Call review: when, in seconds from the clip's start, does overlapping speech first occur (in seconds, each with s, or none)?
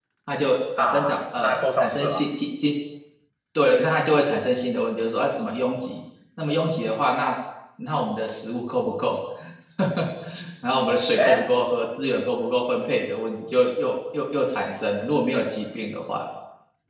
0.8 s